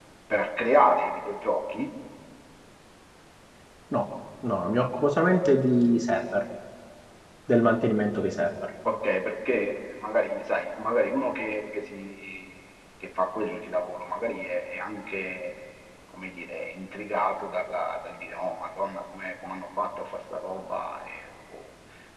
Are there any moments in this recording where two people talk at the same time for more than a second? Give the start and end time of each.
none

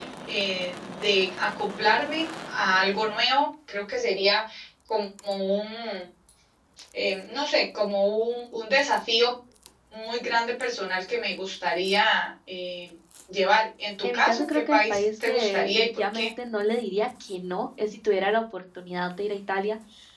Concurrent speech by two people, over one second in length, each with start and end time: 14.1-16.3

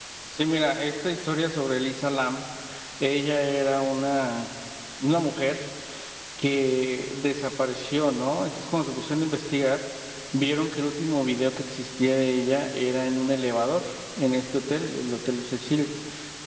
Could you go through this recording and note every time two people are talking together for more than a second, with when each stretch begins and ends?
none

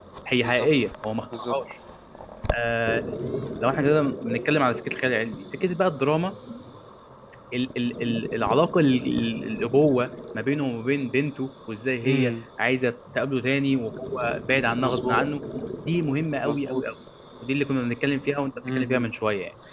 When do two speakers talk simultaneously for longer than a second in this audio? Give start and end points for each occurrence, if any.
none

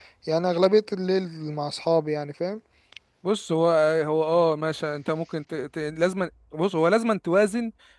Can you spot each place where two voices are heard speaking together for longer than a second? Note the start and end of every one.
none

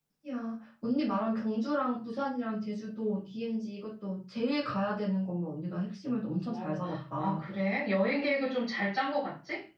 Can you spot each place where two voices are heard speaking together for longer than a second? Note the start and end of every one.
none

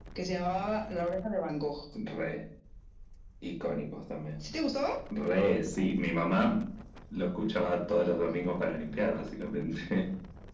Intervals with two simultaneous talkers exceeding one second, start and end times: none

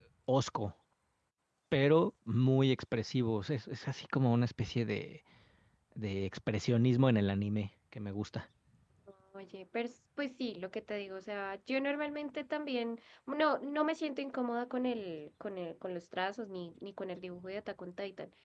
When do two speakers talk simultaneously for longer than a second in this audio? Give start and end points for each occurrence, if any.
none

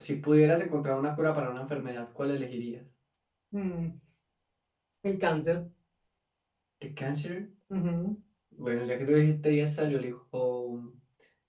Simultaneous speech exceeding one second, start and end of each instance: none

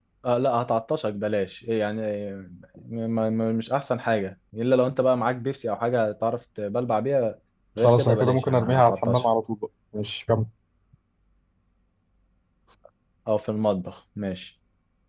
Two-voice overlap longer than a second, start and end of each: 7.8-9.2

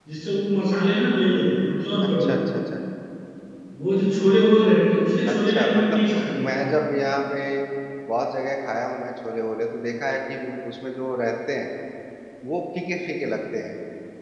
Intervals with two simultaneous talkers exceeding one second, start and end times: 5.3-6.8

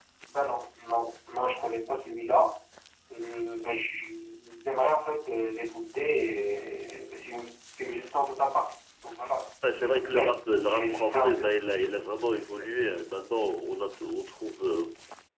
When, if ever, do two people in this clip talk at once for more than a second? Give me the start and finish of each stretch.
9.8-11.4

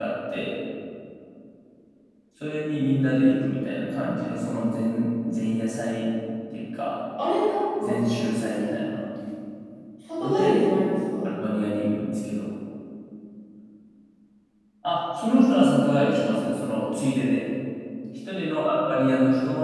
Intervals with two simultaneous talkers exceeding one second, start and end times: none

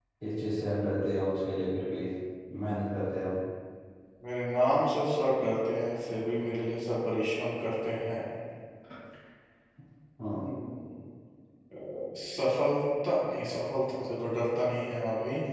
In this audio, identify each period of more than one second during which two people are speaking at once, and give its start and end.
none

